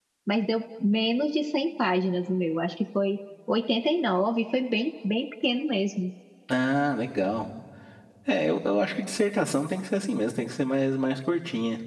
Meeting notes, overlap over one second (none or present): none